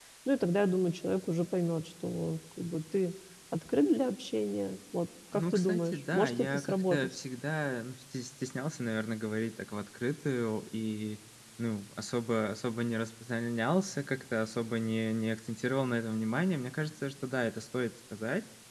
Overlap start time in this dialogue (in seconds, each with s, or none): 5.3 s